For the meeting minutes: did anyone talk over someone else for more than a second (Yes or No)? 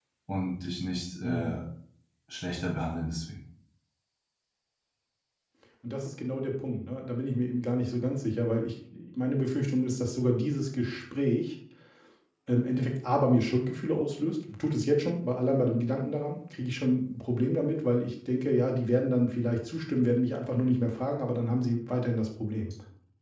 No